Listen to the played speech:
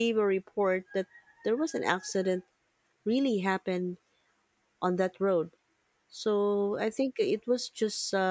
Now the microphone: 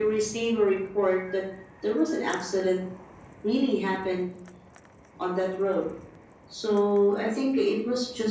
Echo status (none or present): present